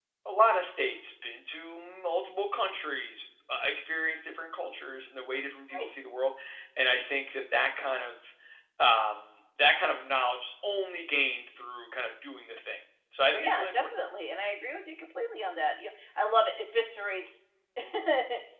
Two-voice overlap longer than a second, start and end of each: none

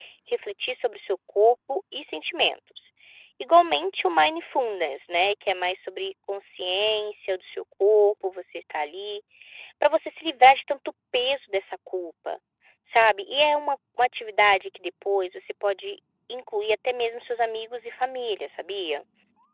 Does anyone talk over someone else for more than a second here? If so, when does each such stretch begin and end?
none

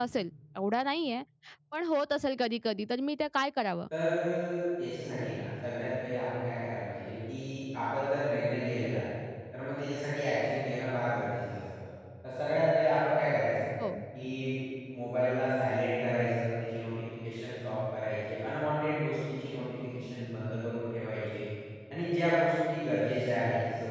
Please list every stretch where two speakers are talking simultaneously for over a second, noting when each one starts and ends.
none

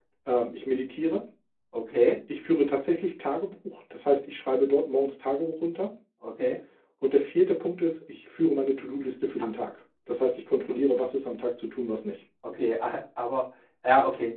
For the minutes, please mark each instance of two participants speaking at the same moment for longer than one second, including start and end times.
none

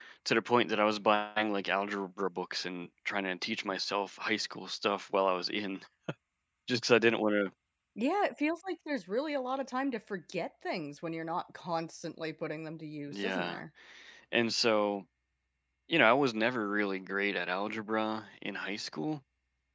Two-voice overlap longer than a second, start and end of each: none

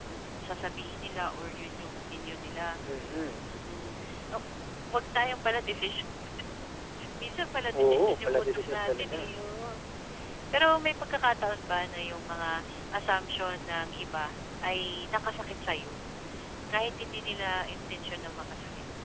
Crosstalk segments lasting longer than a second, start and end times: 7.8-9.2

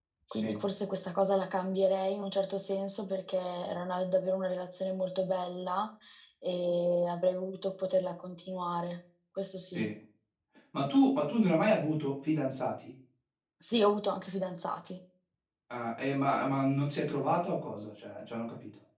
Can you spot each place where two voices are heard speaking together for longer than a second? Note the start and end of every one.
none

